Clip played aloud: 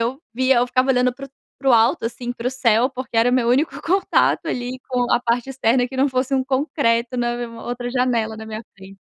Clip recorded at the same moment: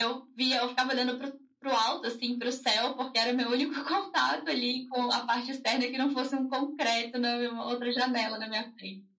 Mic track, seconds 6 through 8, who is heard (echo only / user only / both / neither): echo only